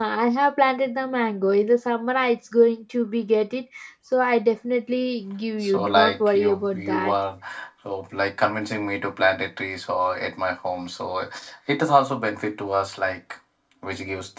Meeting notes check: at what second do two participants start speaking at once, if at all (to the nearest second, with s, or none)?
6 s